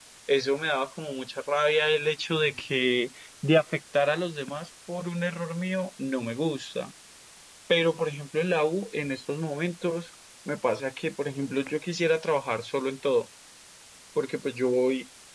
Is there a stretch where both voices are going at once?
No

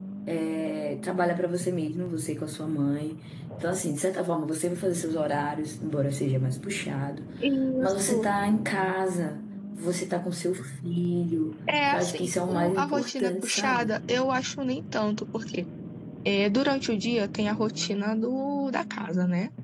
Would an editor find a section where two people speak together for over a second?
Yes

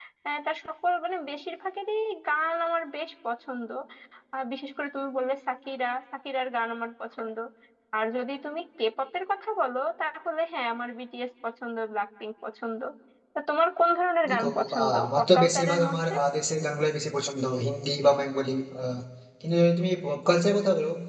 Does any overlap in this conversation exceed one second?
Yes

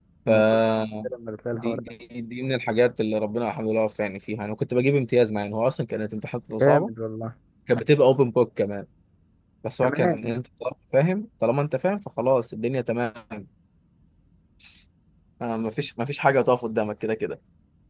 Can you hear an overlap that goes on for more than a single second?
No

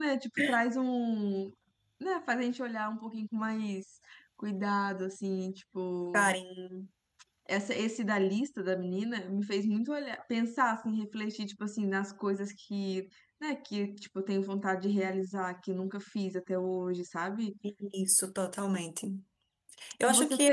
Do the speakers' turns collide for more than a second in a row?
No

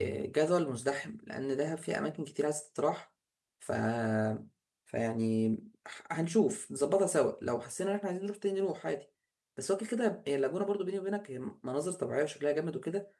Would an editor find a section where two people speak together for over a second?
No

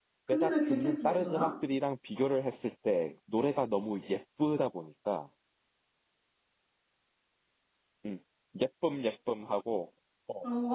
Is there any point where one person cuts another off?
Yes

